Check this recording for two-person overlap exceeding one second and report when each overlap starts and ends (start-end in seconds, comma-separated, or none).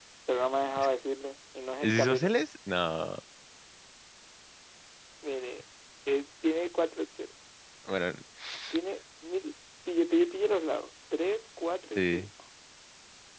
none